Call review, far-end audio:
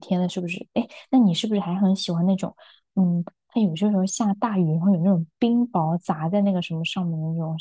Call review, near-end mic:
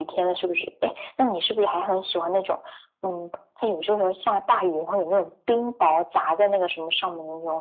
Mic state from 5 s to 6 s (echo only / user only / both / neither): echo only